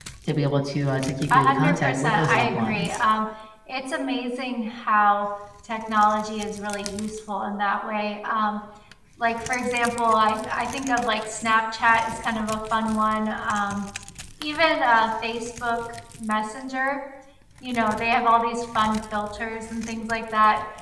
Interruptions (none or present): present